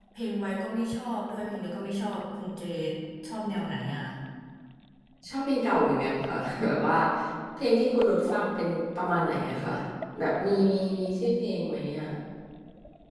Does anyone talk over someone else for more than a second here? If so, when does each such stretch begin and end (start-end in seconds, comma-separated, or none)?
none